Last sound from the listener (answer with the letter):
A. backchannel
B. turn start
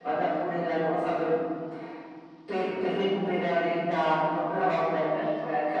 B